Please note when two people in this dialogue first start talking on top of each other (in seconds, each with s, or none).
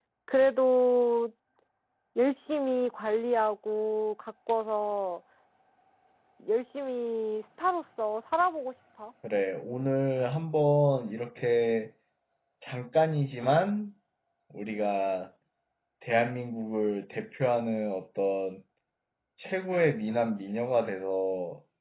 none